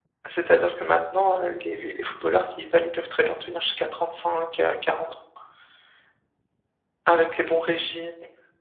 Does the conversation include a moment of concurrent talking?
No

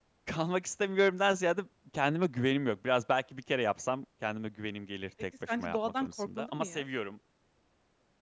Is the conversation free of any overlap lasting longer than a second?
No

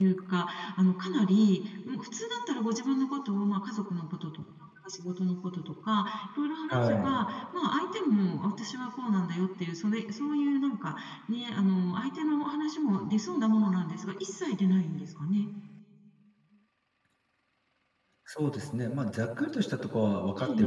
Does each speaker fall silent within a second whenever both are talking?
Yes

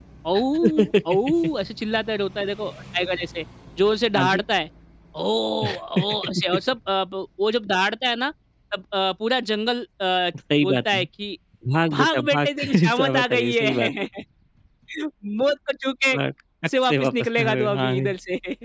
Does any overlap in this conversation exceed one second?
Yes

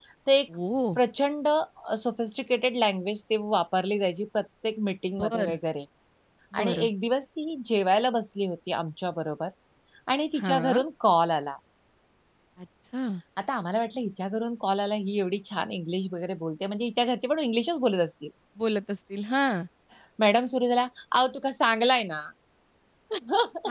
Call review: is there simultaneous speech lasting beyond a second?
No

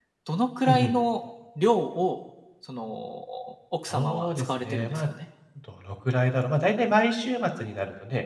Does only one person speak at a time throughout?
No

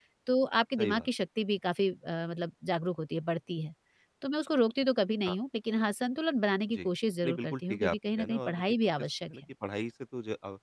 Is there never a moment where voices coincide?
No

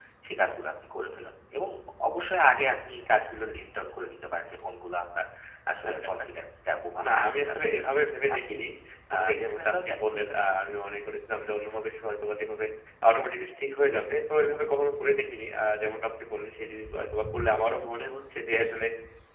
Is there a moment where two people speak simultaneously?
Yes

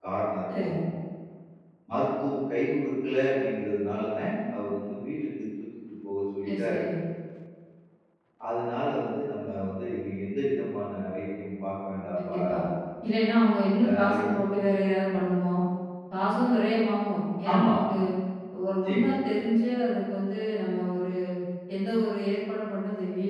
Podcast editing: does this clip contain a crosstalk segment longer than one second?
No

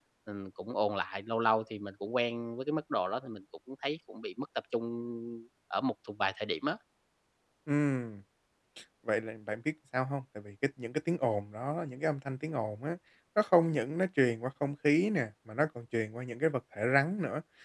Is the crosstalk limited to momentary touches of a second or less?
Yes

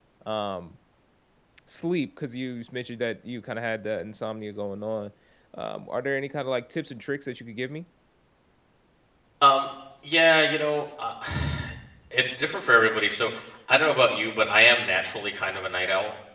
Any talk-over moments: No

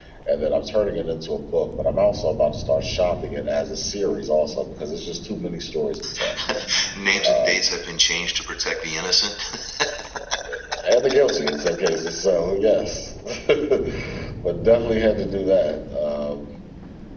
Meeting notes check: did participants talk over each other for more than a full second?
No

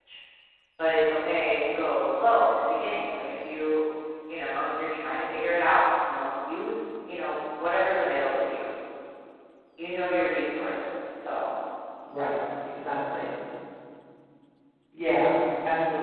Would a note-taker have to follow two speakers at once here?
No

